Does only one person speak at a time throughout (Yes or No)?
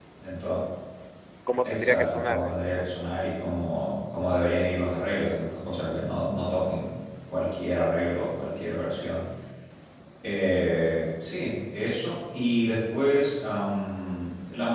No